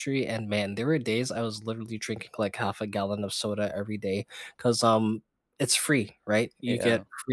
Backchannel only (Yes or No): Yes